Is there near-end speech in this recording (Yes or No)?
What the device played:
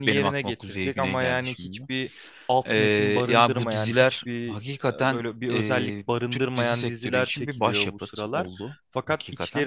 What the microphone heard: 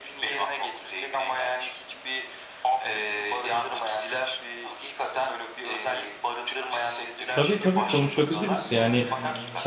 Yes